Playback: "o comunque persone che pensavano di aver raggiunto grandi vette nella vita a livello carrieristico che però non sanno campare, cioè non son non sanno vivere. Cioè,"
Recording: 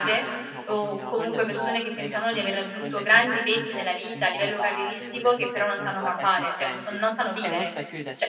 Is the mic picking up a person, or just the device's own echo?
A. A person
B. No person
A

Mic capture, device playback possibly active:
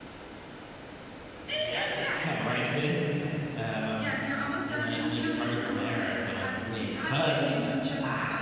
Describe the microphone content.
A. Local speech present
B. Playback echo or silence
A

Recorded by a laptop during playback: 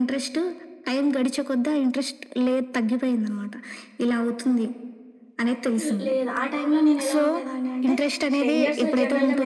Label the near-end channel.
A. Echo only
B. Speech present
B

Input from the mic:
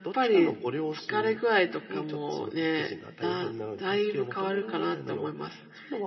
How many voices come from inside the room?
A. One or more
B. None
B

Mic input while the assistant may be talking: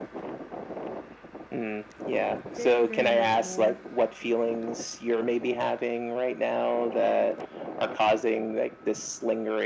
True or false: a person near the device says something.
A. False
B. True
B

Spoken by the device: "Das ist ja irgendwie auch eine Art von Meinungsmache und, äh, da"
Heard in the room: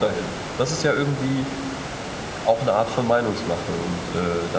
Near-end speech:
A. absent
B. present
A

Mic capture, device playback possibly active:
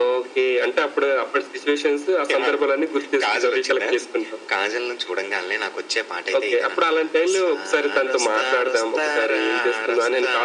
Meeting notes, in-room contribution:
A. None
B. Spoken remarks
A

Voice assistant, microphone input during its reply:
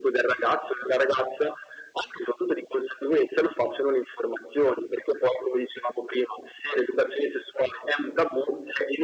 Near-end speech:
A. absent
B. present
A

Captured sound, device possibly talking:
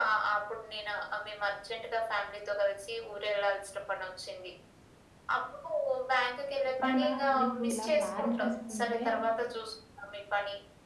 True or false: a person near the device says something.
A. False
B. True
B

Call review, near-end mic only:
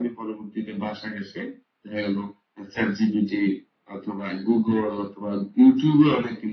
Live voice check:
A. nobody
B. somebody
A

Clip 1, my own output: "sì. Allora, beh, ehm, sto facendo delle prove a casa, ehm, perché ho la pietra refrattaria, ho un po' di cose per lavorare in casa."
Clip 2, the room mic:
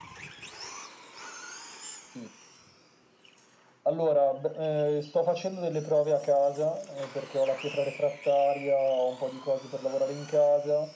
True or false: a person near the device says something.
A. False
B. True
A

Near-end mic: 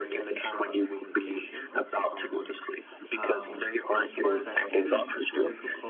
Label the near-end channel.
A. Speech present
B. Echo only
A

